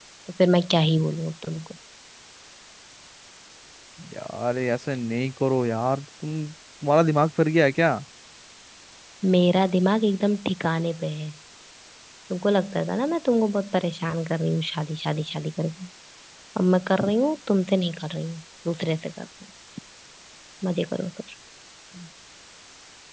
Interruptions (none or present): none